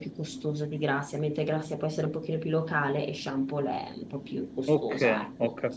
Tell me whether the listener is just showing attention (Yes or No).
No